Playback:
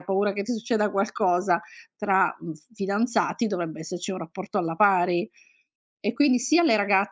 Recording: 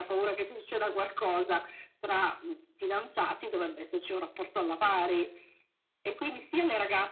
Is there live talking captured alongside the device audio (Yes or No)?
No